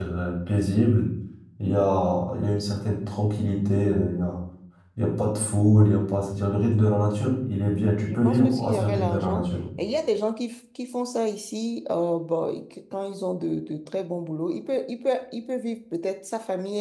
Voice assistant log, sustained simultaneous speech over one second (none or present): present